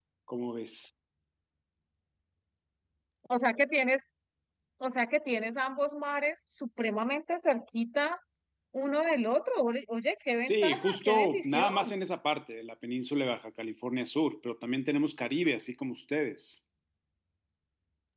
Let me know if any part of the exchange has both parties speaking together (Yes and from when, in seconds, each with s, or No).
Yes, from 10.4 s